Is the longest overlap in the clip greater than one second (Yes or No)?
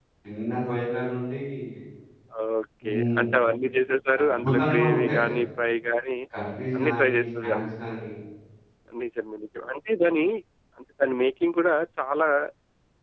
Yes